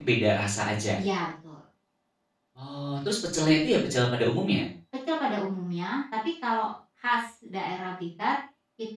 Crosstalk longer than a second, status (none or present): none